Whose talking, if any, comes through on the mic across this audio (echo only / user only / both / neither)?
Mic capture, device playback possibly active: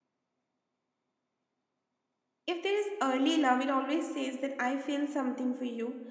user only